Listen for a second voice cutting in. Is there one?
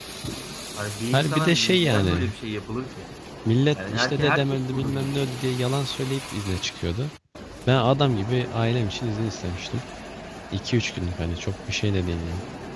Yes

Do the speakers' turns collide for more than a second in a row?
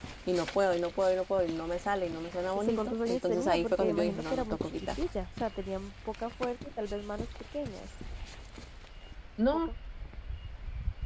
Yes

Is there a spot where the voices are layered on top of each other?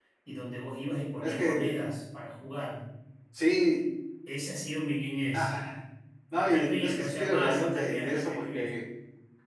Yes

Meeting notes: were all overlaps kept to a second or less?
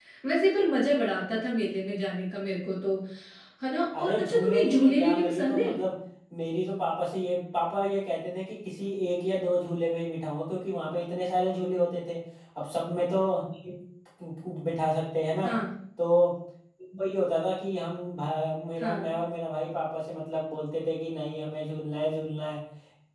No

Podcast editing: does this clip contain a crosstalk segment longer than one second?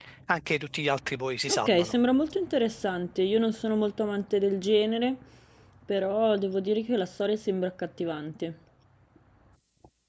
No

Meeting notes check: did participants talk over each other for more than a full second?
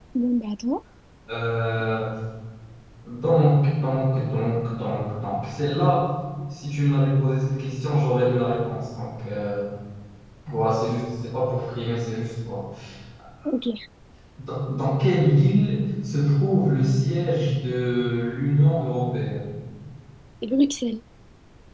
No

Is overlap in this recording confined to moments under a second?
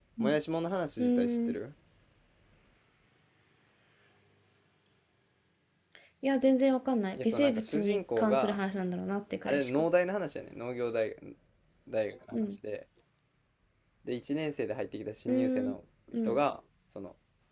No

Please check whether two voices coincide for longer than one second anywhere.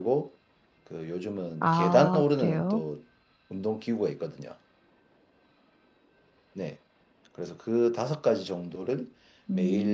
Yes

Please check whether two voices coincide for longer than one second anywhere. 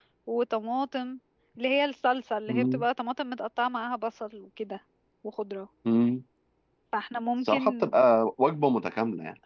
No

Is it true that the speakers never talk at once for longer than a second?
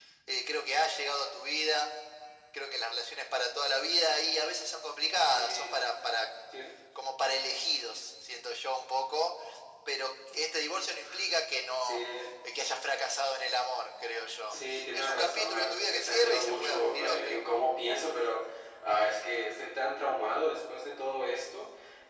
No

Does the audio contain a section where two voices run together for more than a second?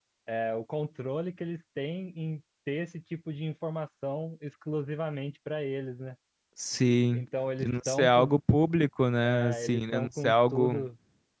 Yes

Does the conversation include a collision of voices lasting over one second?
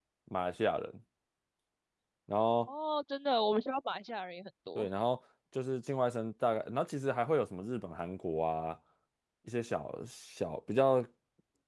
No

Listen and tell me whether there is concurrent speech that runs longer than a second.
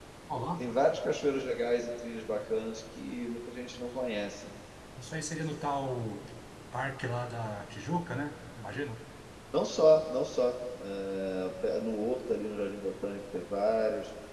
No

